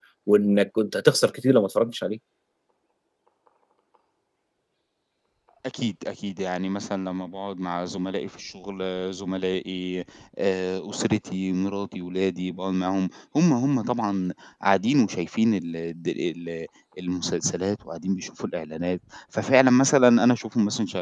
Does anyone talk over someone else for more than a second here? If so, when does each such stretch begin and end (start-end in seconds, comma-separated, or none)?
none